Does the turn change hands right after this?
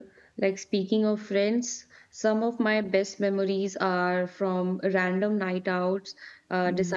No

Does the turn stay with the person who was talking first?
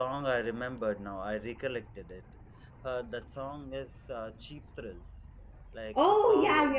No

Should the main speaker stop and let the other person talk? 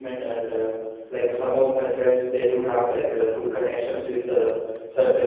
No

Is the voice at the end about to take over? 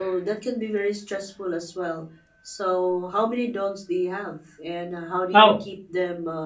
No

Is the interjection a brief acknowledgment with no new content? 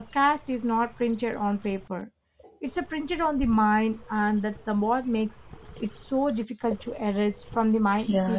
No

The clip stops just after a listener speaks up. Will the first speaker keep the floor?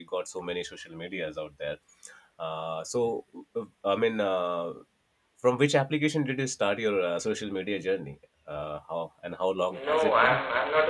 No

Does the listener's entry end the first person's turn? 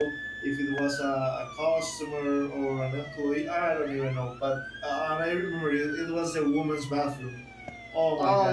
Yes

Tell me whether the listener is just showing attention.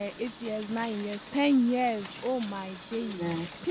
Yes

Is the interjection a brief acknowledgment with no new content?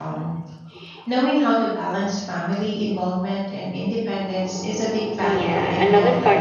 No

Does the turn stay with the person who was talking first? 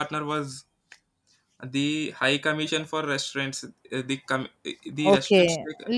No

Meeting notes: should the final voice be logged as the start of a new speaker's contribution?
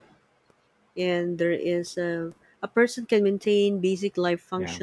No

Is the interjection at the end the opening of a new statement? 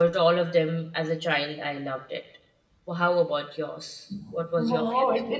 Yes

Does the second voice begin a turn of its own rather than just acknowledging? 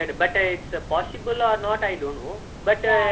No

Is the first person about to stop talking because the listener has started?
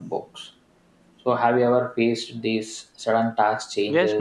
Yes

